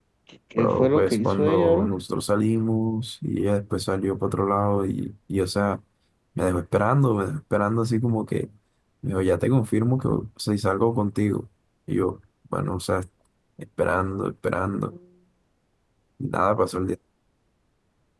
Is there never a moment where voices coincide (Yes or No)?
No